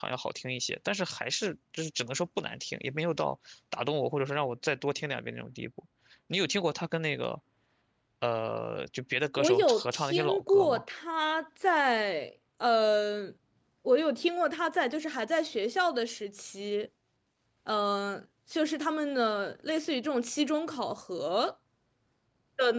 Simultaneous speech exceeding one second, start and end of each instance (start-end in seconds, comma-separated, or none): 9.4-10.8